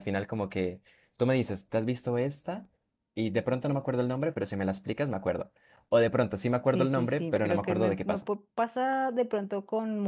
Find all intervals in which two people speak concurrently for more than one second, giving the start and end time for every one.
6.7-8.2

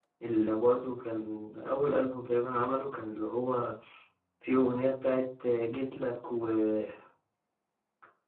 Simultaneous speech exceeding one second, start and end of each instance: none

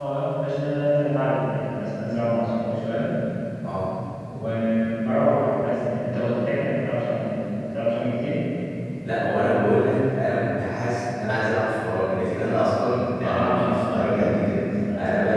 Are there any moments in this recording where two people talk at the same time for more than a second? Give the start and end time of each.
13.2-14.6

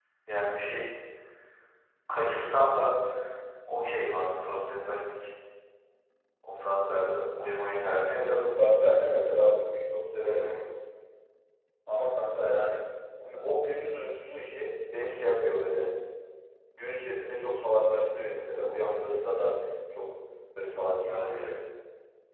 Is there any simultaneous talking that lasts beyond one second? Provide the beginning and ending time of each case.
none

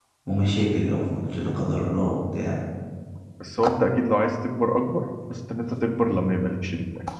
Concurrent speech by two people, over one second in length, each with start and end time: none

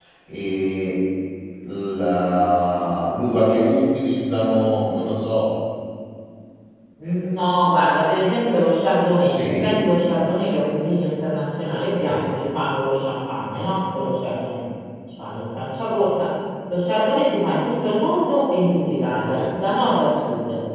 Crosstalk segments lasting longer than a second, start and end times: none

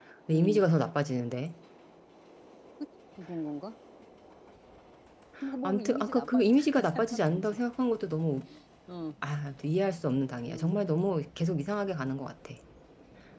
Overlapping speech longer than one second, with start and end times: 5.6-7.6

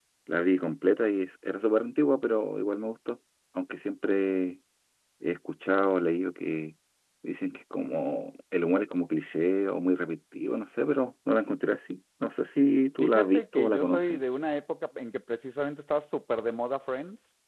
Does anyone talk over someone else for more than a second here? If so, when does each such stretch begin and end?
13.0-14.2

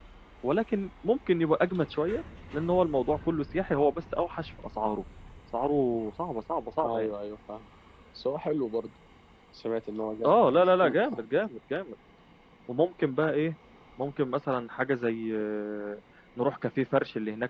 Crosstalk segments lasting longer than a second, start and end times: none

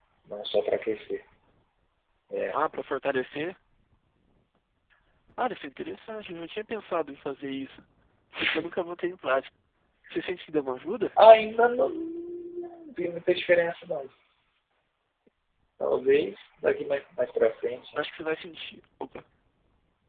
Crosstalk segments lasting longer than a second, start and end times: none

